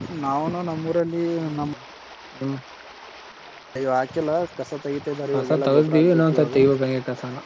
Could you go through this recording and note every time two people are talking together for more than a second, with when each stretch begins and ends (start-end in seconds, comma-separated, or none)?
5.3-6.7